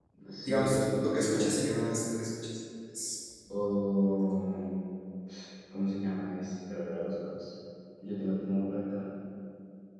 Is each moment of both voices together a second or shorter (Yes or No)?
No